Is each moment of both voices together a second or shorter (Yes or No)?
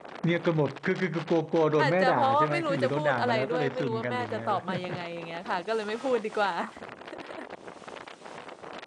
No